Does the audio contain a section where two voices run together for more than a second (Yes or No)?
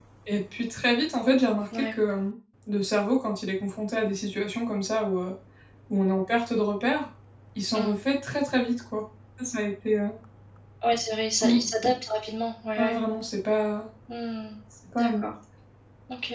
No